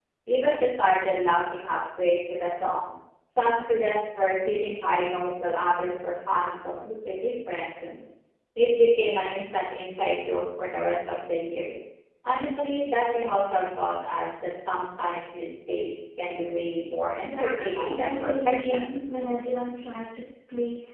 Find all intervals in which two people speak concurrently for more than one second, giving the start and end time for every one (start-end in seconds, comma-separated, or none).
17.2-18.9